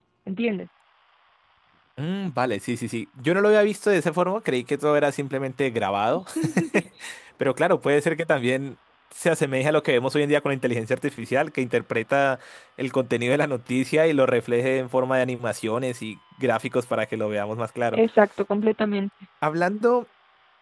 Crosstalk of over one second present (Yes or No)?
No